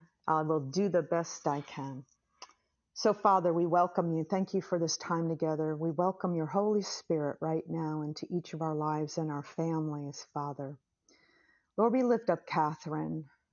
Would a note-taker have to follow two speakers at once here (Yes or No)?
No